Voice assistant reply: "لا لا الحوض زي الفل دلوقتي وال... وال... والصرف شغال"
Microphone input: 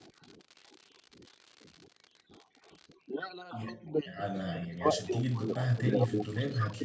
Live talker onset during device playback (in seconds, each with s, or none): 3.5 s